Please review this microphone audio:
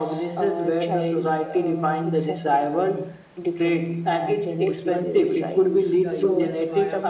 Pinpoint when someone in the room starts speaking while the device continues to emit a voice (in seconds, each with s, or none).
4.6 s